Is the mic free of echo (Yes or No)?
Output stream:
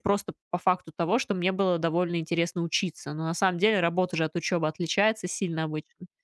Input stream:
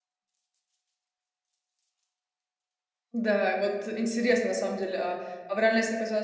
Yes